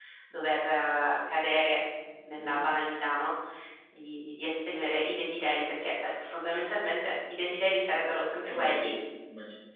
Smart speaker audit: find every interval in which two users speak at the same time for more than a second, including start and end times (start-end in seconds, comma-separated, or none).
none